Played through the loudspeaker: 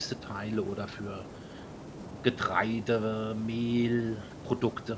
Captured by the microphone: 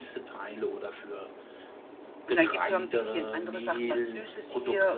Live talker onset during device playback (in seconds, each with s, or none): 2.2 s